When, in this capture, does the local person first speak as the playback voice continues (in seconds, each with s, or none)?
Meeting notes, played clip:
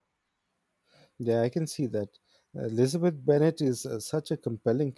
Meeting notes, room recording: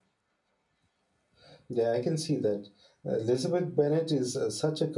none